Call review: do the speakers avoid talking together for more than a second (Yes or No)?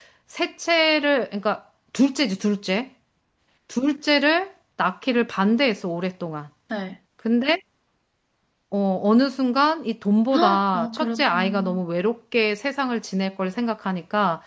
No